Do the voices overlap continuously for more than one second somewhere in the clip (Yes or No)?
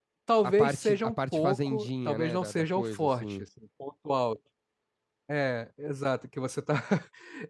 Yes